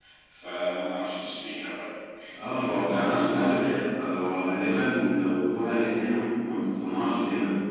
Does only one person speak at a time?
No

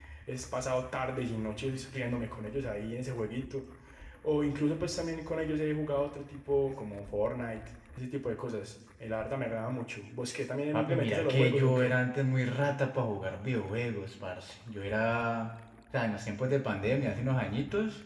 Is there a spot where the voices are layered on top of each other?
Yes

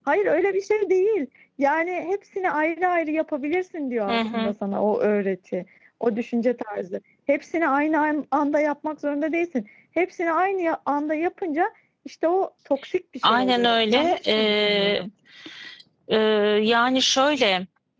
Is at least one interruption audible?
Yes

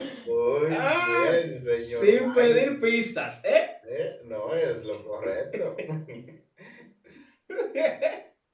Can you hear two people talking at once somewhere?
Yes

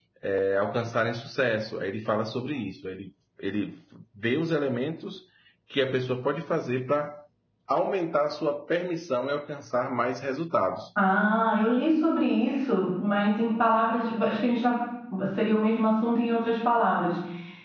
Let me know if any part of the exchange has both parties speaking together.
No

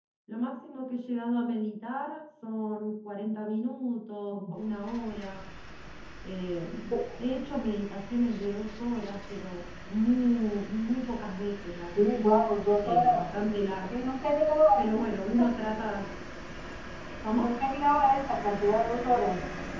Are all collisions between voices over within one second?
Yes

